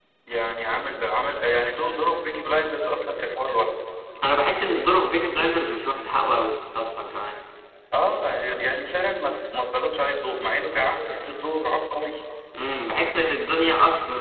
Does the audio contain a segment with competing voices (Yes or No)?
No